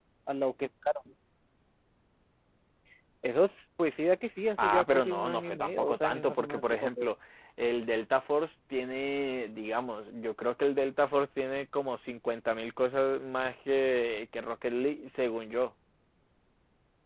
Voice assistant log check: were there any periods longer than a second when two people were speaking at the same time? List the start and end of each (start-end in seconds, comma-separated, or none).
4.6-7.1